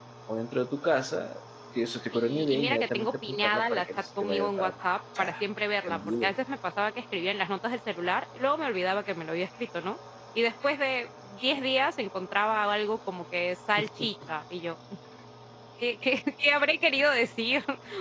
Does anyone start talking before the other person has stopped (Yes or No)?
Yes